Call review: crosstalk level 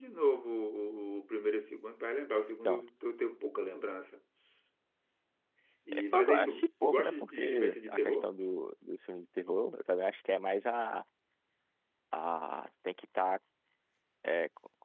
present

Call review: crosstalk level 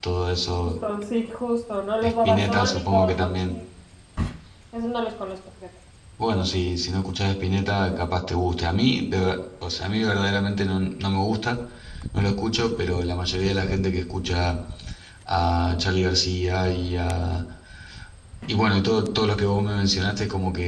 present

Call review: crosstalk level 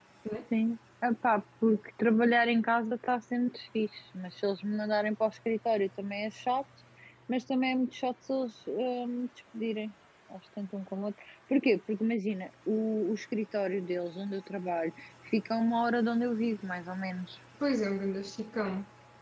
none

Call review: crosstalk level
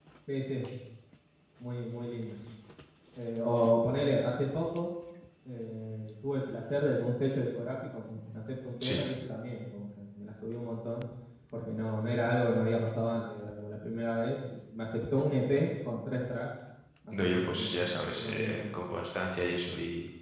present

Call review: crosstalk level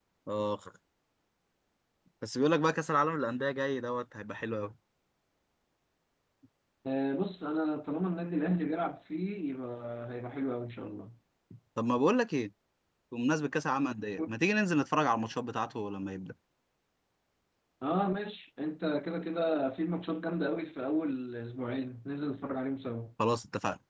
none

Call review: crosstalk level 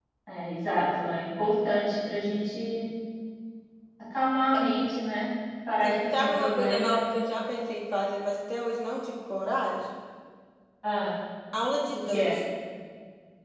present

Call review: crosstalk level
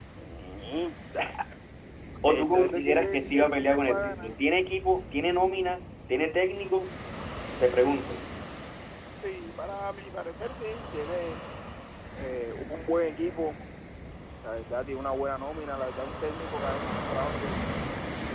present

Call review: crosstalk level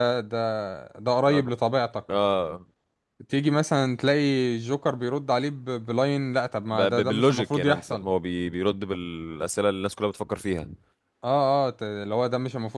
present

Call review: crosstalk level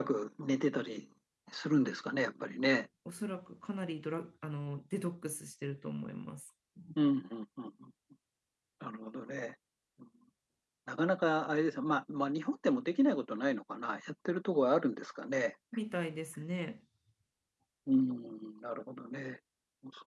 none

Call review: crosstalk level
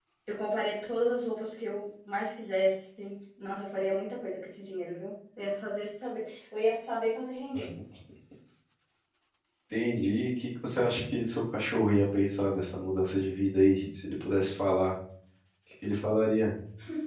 none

